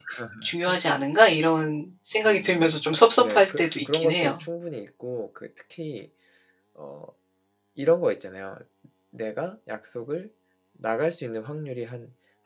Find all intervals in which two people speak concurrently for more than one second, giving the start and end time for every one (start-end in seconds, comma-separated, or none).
3.2-4.4